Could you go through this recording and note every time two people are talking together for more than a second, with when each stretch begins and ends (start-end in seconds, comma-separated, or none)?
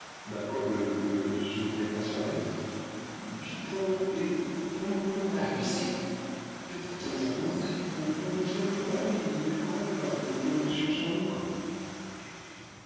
none